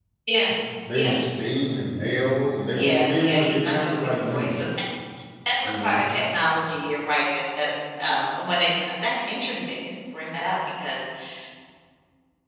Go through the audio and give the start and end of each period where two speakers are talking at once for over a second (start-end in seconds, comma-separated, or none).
2.7-4.7